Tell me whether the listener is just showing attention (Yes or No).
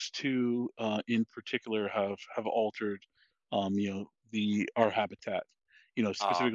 Yes